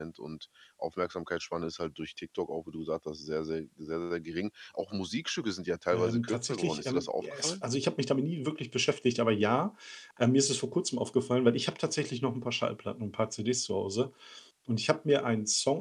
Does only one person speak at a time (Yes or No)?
No